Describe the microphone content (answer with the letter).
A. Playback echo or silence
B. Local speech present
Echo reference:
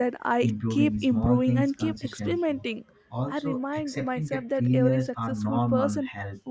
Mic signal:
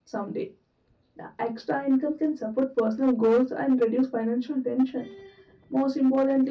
B